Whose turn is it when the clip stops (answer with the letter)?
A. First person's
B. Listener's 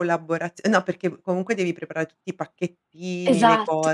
A